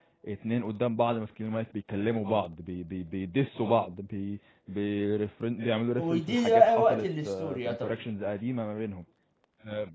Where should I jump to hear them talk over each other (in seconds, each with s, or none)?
6.0 s